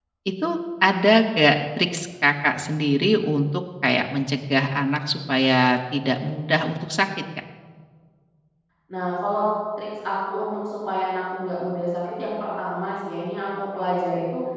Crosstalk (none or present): none